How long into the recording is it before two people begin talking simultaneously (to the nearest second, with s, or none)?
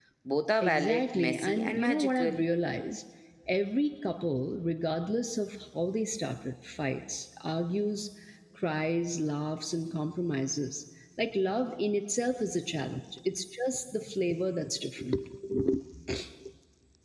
1 s